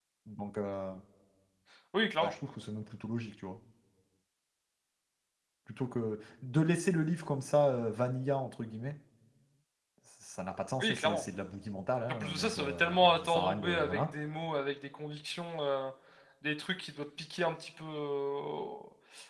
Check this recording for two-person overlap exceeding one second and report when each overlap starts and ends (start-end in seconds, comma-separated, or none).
12.2-14.1